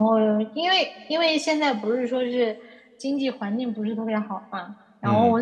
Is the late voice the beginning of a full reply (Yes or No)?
No